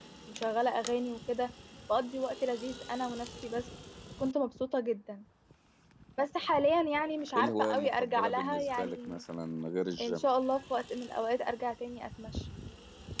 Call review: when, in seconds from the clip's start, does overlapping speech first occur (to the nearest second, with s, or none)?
7 s